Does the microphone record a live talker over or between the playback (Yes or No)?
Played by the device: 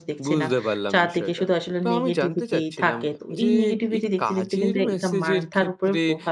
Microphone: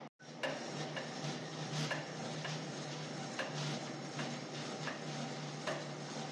No